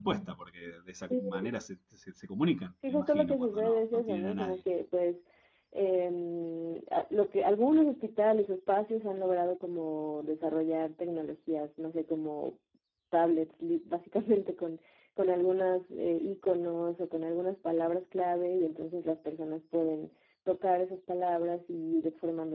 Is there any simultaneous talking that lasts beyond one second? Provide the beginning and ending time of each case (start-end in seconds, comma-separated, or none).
2.9-4.6